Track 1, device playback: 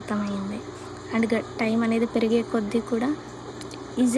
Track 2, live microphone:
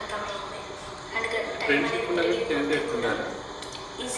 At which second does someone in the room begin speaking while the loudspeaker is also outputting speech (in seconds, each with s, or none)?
1.4 s